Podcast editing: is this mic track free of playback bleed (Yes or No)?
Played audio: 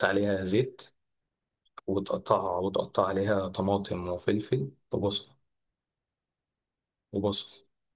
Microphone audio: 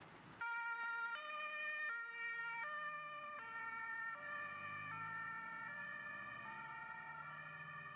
Yes